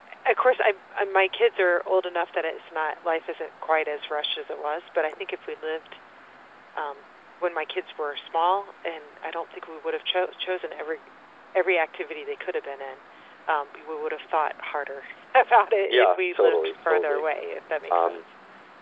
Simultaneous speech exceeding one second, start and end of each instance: 15.8-17.2

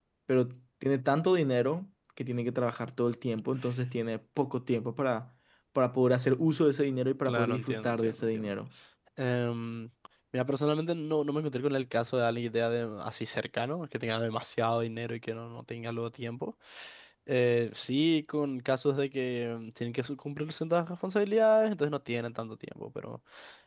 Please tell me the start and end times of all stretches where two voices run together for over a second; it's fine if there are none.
7.2-8.5

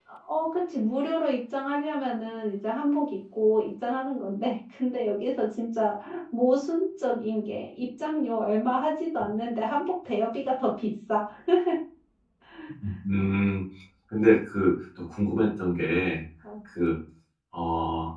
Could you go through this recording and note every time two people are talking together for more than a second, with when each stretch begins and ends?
none

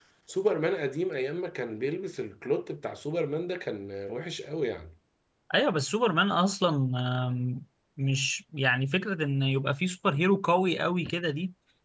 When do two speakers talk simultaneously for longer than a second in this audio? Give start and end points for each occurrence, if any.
none

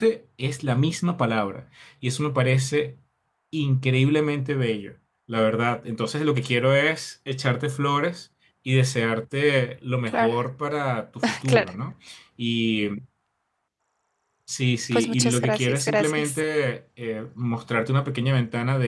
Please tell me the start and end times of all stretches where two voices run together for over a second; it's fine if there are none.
14.9-16.4

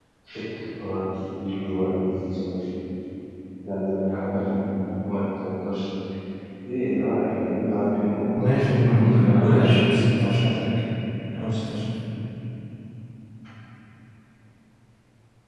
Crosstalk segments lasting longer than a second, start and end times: 8.4-10.0

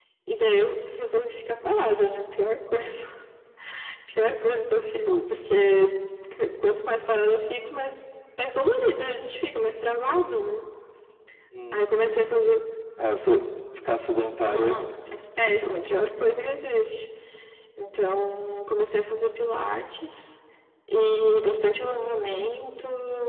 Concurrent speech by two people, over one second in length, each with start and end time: 14.4-15.8

